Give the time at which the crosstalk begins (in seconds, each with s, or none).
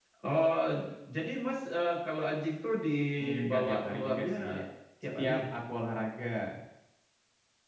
3.2 s